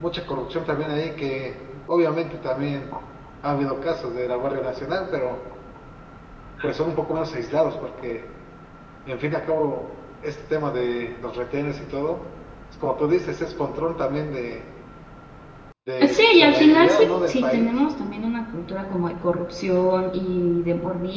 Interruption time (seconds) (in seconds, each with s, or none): 16.1 s